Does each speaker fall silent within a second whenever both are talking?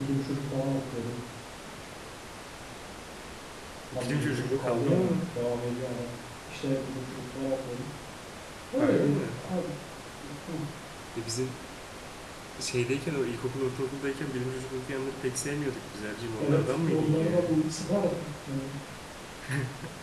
No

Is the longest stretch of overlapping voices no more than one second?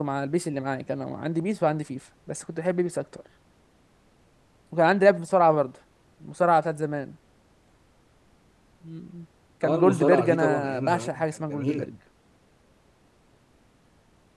No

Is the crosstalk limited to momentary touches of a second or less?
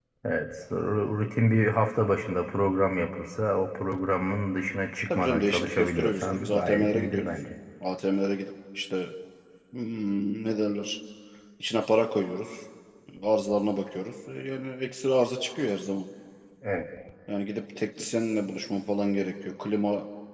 No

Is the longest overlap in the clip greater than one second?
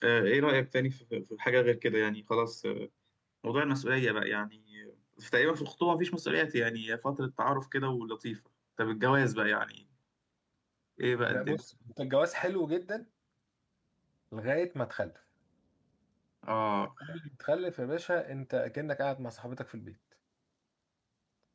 No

